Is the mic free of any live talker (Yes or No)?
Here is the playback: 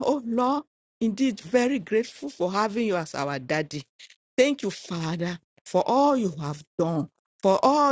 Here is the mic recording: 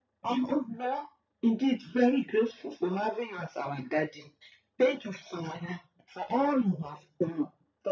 Yes